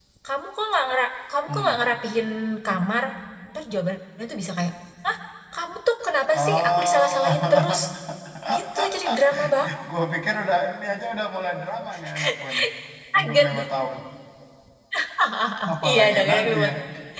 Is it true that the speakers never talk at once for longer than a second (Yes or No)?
No